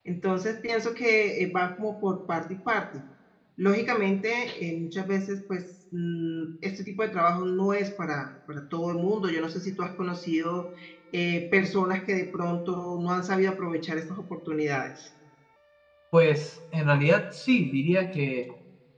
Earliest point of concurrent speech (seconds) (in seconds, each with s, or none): none